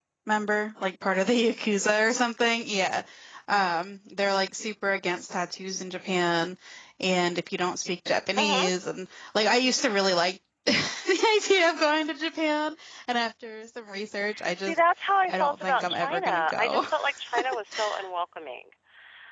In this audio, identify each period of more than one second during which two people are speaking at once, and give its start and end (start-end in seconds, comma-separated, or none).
15.3-16.8